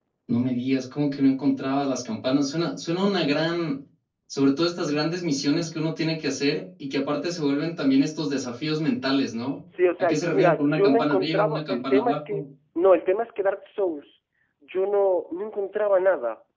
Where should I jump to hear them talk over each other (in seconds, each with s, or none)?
10.0 s